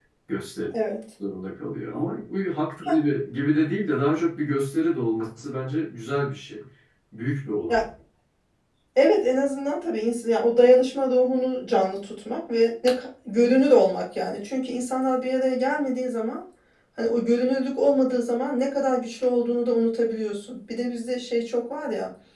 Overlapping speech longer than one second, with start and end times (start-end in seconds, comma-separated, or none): none